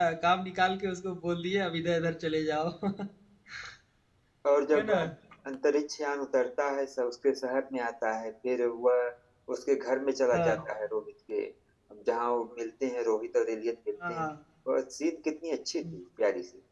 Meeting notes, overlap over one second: none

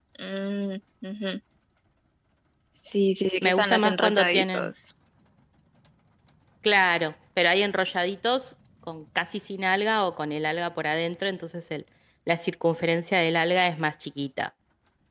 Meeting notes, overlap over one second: present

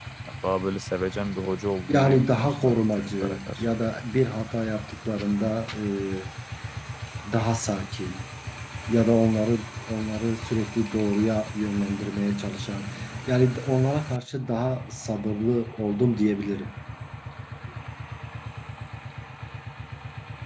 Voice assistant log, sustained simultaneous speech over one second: present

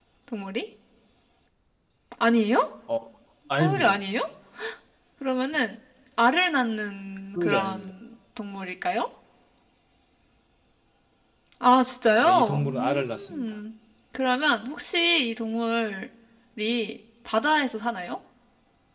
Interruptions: present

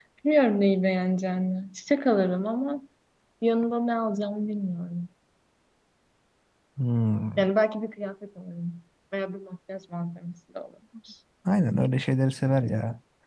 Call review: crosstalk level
none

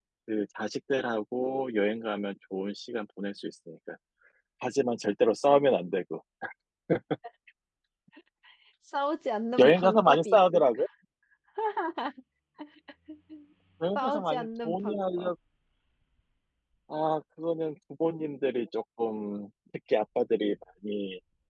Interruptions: present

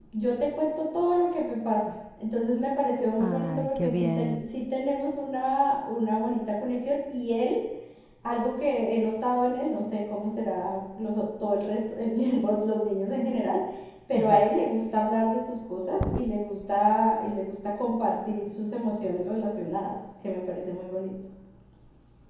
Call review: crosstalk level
present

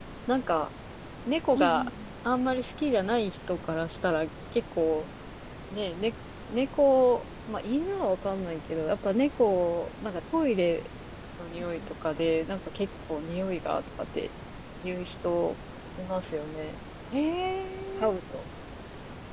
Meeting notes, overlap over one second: none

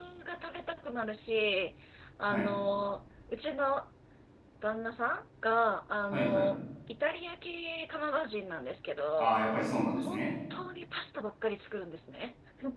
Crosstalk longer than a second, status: none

